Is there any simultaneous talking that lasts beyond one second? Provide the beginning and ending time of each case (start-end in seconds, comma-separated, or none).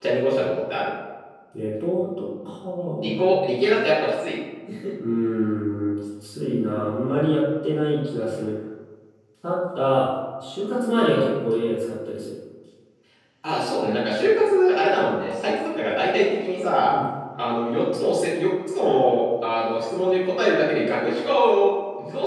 none